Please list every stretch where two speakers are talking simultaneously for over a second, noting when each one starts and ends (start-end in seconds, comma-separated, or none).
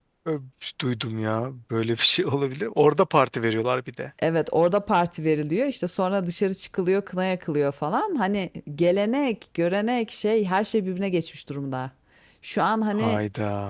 none